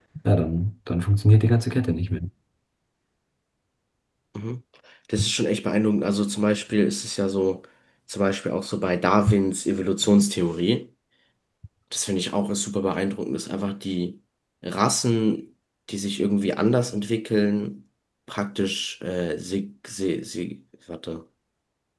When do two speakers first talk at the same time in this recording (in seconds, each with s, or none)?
none